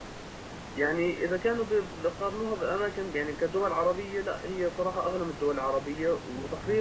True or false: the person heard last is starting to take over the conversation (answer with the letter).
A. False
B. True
A